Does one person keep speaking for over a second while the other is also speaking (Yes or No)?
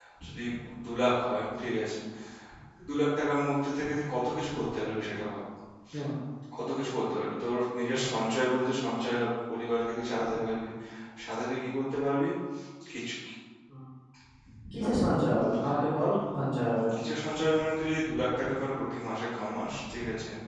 No